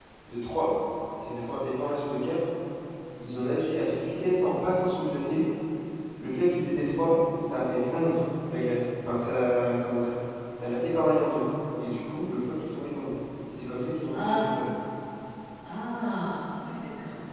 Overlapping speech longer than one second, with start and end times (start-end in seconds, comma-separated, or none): none